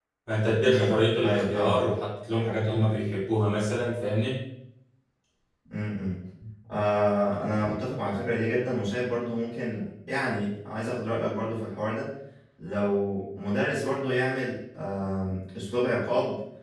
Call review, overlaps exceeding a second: present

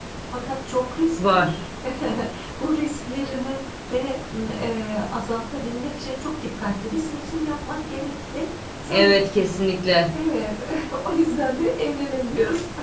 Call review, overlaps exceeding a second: none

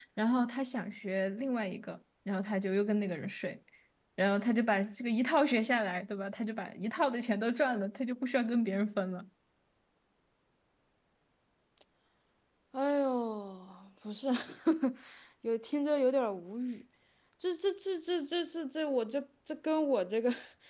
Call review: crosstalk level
none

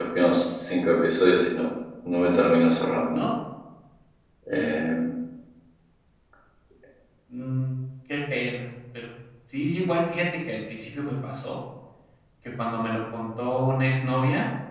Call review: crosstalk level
none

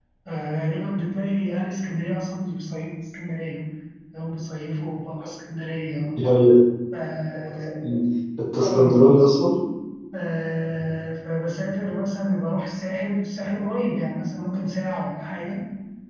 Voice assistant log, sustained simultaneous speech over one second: none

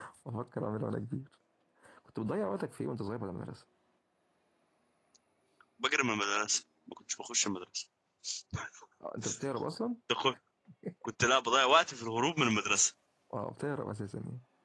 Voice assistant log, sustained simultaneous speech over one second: none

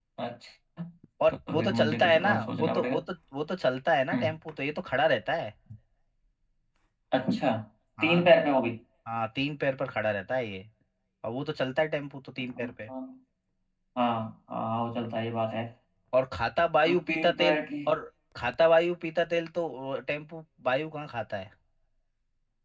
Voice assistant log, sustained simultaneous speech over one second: present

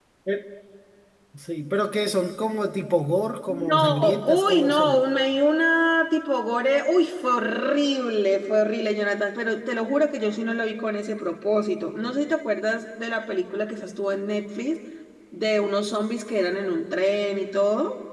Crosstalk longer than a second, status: present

